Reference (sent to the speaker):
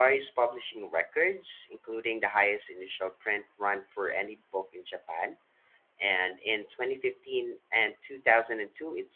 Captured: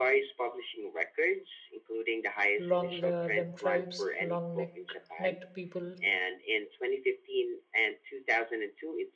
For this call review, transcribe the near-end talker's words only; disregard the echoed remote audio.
Long Lem tribes, long-necked neck necked people

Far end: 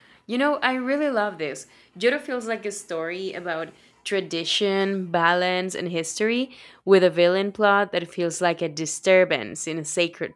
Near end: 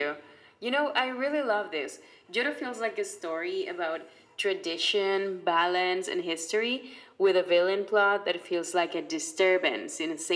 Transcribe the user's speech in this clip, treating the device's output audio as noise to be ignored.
none

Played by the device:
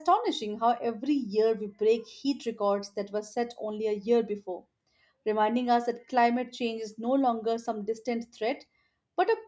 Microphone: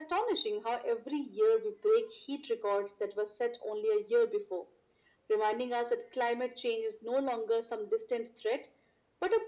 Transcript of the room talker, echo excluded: none

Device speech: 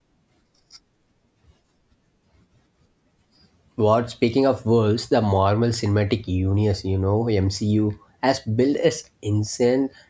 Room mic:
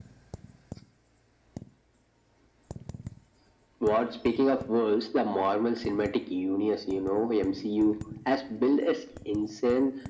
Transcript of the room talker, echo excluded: none

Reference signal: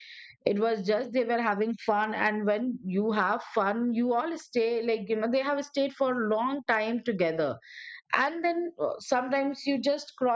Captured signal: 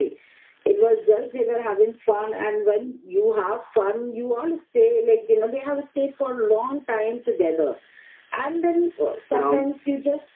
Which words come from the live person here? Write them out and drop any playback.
you know

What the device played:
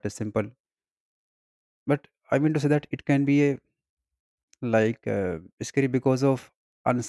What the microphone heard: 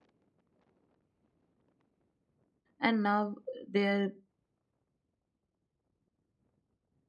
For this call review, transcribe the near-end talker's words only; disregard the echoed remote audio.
and now they're

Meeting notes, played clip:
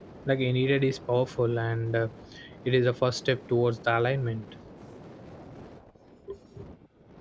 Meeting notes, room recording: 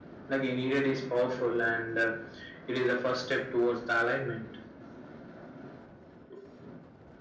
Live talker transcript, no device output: none

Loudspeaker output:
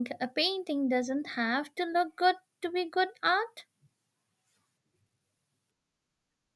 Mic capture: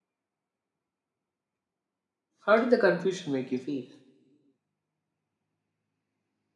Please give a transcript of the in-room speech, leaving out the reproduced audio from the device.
How did the confusion make you feel?

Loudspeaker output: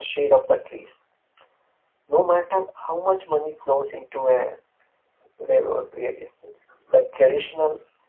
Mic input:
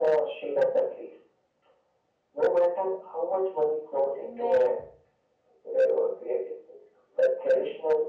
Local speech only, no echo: Well,

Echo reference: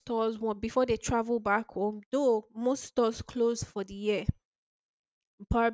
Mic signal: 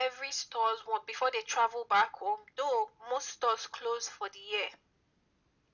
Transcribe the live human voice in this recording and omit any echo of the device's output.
none

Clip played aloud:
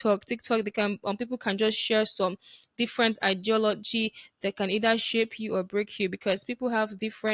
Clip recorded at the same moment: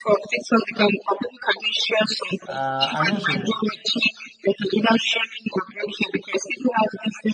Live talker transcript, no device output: uh, and also

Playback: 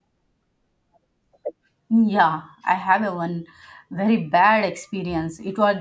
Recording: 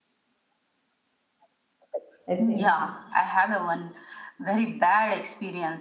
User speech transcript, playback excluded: I think.

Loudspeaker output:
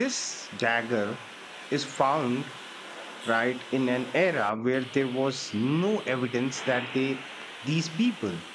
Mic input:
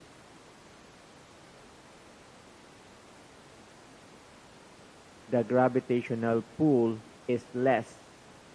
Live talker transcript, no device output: the gravitational pull is less

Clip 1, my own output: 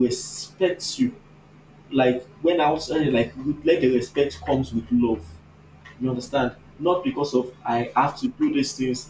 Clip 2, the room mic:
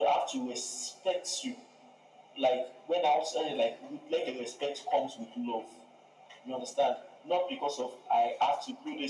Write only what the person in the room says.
none

